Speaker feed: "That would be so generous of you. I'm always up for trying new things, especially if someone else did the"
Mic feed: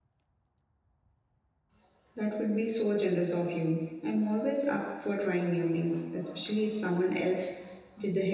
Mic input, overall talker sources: echo only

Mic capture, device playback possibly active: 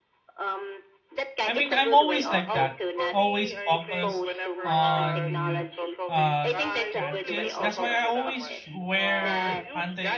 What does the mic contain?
both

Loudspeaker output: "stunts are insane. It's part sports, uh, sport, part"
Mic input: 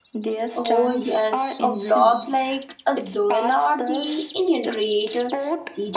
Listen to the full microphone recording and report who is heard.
both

